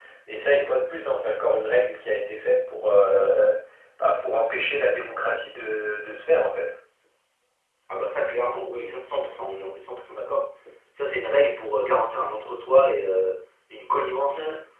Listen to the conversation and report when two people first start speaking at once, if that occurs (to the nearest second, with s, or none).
none